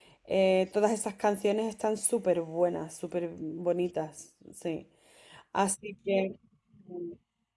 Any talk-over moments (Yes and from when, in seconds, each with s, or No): No